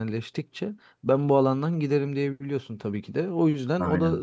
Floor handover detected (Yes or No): No